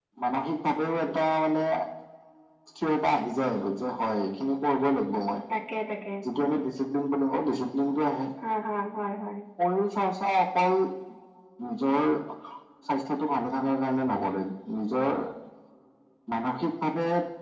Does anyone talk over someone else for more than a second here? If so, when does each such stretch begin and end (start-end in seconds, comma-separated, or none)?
none